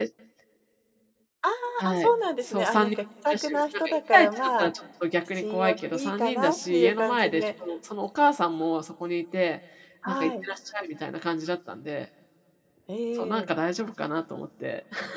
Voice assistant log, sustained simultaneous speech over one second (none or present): present